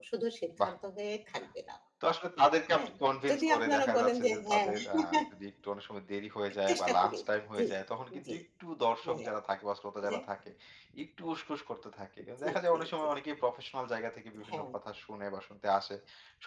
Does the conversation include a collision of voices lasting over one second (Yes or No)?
Yes